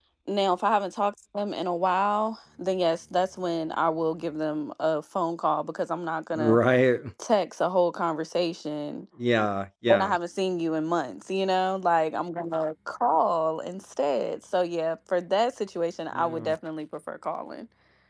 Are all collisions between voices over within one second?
Yes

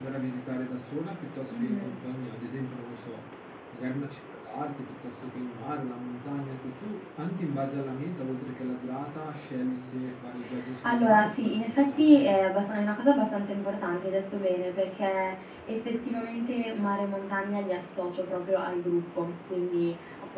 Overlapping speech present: Yes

